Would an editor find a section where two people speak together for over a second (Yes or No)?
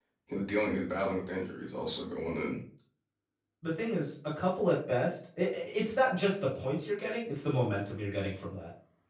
No